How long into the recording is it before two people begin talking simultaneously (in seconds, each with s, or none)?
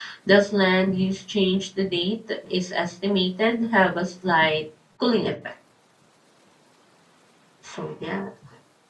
none